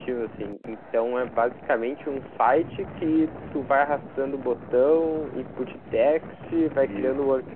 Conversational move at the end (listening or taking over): listening